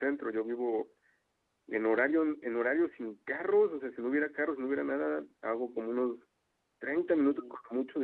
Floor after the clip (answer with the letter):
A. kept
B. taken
A